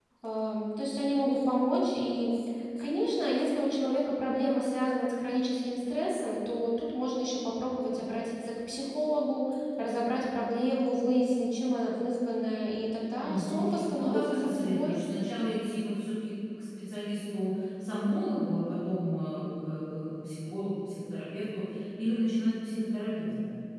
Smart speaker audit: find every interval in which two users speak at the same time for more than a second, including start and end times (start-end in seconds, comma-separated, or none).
13.2-15.0